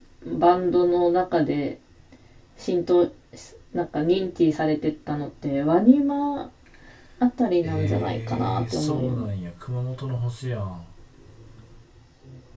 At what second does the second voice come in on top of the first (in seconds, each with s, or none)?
7.6 s